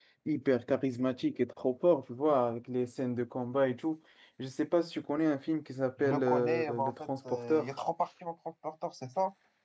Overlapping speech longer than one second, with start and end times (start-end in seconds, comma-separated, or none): 6.0-7.7